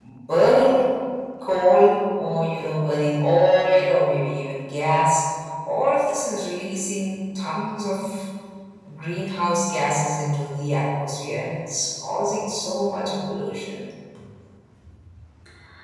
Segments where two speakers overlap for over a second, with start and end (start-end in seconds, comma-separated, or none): none